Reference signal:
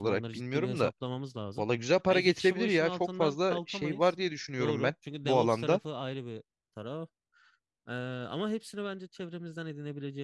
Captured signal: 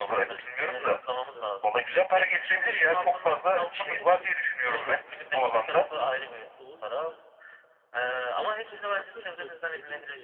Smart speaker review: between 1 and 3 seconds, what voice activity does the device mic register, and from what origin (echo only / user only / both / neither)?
both